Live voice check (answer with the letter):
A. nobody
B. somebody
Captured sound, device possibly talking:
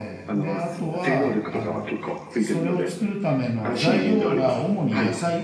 B